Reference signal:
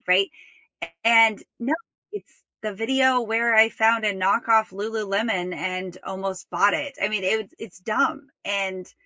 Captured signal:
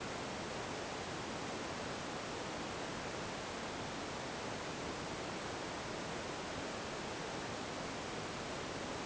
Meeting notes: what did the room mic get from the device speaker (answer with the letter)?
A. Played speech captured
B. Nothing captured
B